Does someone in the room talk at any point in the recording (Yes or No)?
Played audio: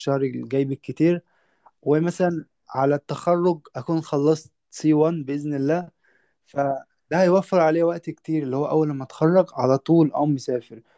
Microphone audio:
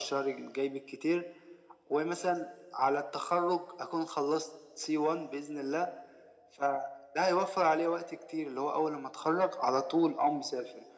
No